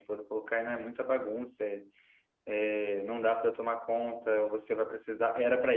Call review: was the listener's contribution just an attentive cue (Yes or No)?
Yes